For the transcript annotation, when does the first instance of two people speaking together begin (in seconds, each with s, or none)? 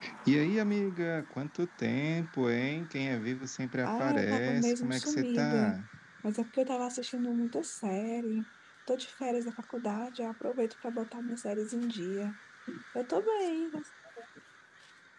3.8 s